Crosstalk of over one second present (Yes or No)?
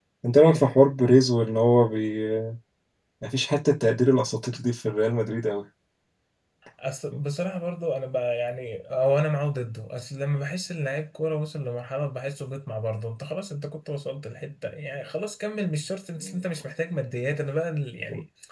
No